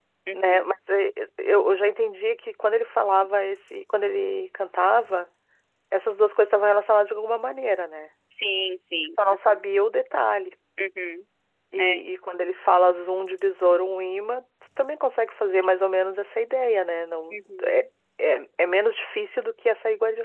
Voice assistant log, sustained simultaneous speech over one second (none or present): none